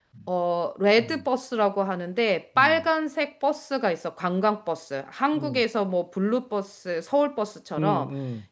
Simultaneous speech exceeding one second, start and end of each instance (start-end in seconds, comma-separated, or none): none